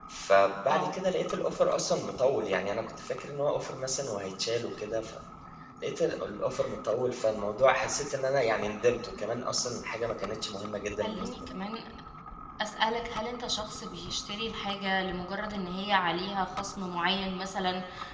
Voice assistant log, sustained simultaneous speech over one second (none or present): none